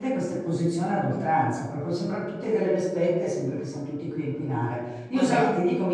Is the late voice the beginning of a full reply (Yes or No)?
No